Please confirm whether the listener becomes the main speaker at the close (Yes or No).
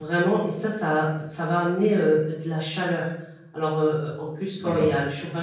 No